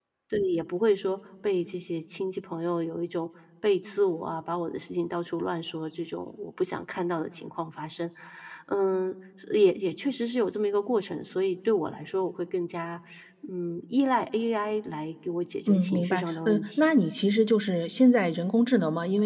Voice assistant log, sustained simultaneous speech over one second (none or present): present